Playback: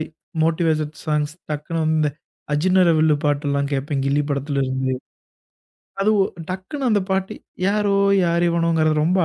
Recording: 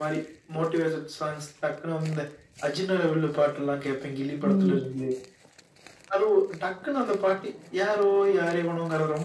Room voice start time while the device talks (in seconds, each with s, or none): 4.4 s